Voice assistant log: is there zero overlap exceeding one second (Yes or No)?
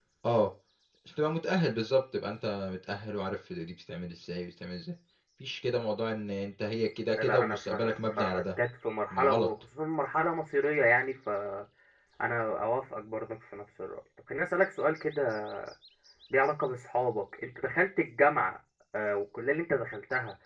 No